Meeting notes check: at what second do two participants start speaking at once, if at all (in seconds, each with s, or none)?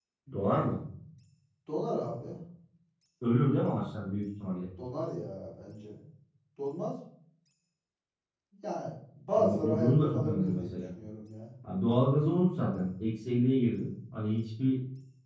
9.4 s